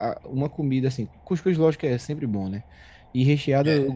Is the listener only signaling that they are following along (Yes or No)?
Yes